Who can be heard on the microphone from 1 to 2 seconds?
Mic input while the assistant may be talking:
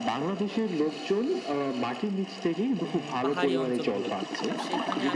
echo only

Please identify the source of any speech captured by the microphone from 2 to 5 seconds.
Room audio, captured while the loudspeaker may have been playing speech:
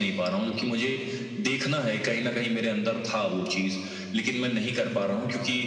echo only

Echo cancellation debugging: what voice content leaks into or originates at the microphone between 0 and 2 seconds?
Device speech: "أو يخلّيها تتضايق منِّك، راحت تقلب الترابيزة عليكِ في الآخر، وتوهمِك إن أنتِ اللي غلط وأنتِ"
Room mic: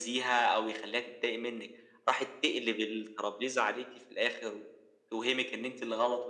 echo only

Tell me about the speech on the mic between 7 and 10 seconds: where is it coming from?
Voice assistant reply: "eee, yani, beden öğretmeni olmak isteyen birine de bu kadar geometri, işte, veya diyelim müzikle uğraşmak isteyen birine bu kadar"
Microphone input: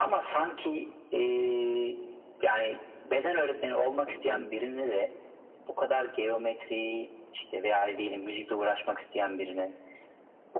echo only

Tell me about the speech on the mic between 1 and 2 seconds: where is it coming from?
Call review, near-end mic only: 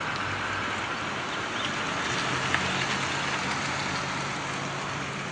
neither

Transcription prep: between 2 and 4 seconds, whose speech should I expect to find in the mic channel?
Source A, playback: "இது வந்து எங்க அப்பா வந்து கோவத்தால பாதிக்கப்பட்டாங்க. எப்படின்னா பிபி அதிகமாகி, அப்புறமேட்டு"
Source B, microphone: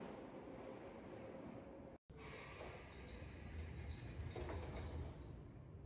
neither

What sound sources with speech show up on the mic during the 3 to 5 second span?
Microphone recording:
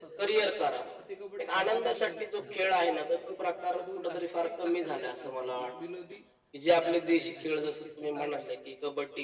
both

